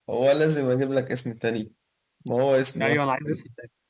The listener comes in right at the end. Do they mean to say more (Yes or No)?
Yes